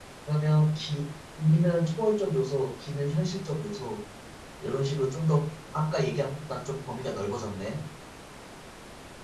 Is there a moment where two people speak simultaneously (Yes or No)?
No